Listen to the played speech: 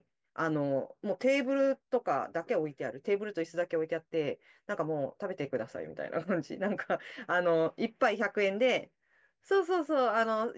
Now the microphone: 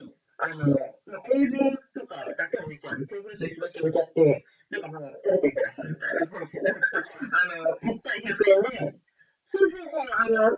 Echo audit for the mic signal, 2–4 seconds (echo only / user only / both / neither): echo only